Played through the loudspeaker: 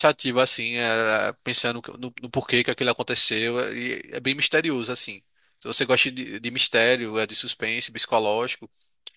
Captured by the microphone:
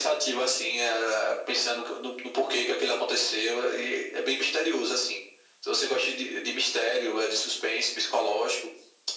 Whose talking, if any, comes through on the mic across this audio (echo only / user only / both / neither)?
echo only